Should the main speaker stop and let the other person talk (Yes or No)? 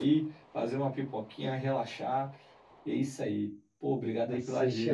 Yes